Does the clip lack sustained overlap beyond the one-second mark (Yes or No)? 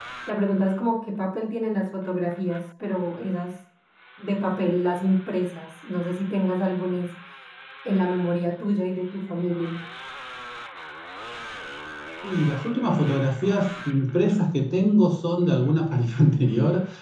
Yes